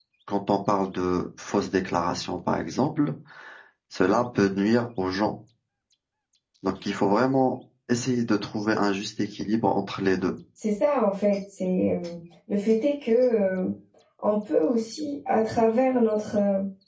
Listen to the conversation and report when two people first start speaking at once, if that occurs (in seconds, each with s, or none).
none